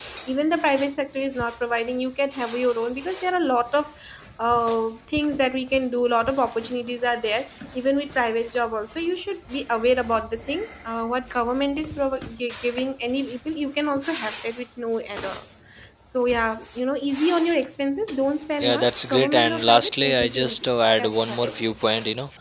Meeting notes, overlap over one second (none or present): present